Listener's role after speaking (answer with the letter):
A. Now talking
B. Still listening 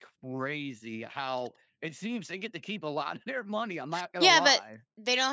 A